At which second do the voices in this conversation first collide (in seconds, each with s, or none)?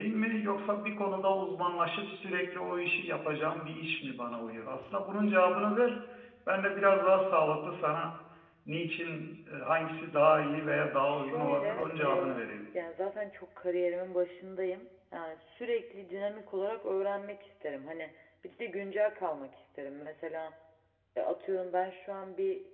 11.1 s